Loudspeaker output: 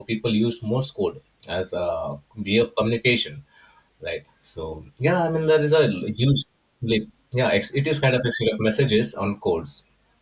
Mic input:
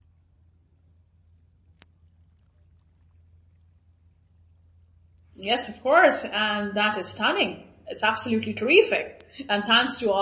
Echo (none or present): none